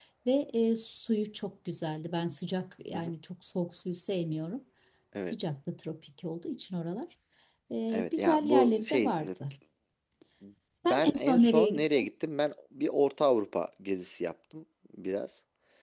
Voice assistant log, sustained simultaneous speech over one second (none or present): present